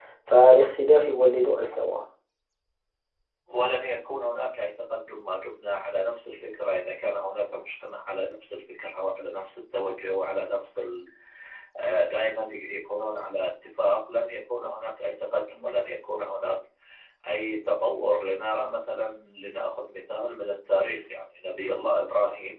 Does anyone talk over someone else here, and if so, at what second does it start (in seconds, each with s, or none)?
none